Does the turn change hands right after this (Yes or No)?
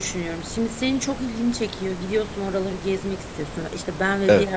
No